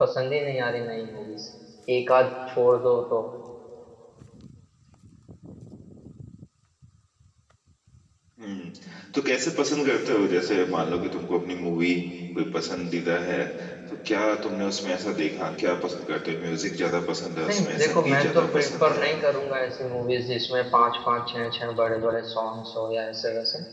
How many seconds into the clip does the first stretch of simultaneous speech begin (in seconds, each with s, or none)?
17.5 s